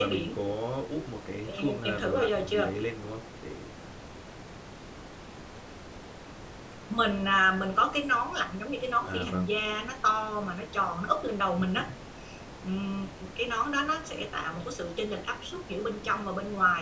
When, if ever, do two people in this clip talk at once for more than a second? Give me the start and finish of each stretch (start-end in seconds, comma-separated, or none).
1.5-2.7